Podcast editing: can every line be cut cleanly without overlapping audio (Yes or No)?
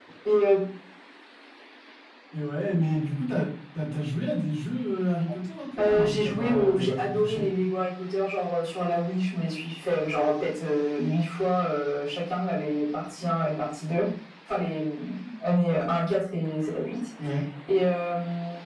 No